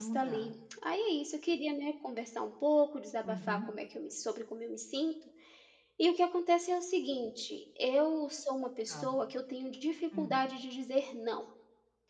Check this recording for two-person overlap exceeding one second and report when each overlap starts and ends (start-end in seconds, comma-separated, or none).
none